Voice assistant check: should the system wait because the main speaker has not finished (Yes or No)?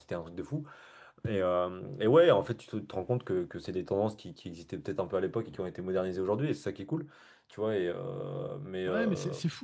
No